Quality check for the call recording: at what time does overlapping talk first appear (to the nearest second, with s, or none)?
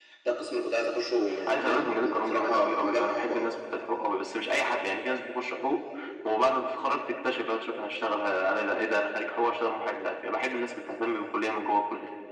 1 s